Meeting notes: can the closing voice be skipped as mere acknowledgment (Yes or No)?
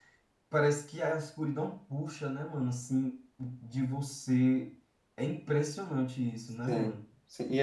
No